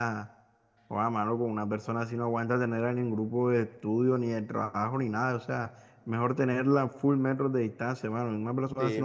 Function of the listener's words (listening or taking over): listening